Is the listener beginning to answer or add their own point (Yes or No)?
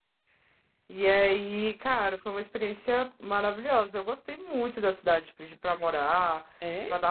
No